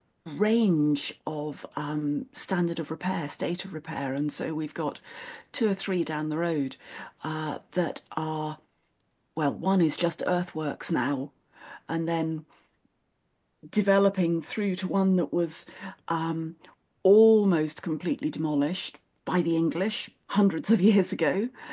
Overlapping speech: No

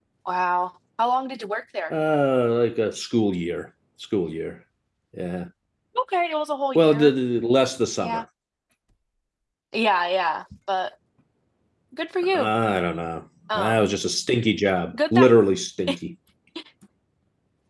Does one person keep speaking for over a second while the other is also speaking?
No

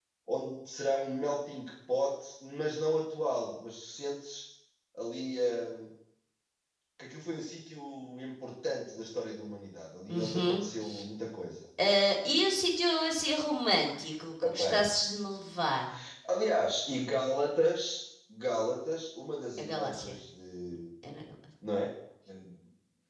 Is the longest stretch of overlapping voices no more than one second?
Yes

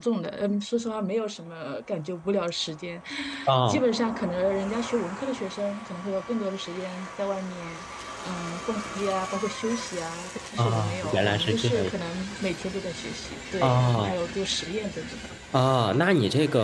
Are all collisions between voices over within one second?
No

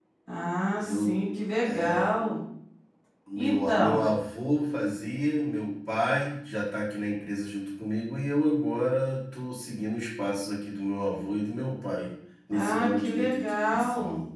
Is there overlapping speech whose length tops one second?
Yes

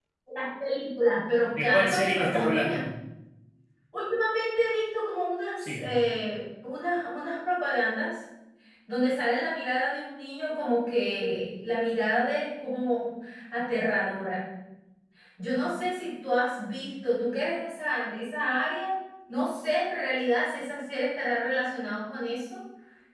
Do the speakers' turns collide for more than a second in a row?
Yes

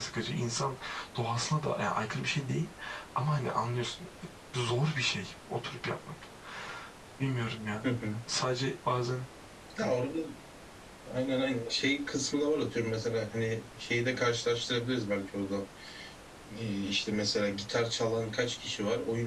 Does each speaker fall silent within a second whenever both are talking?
Yes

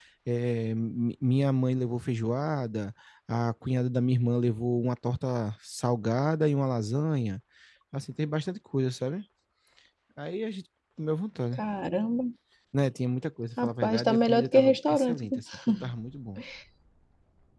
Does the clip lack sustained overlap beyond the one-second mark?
No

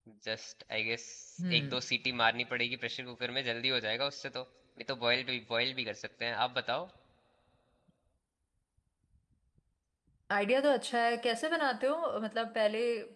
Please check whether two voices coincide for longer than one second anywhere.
No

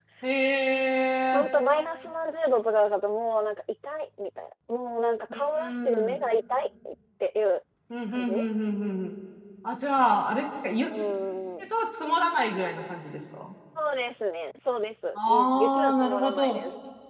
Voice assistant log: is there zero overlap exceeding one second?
No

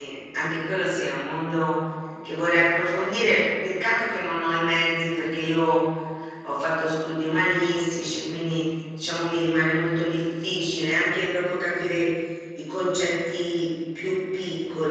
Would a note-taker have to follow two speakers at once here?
No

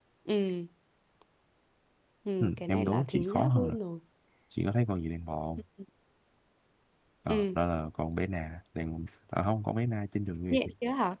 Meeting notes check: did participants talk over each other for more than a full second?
Yes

